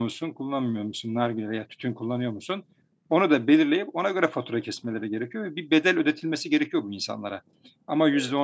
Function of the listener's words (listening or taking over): listening